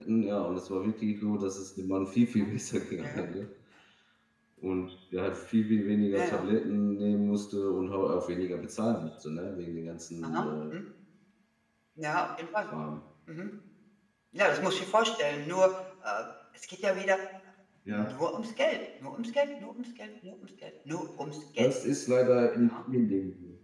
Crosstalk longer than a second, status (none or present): none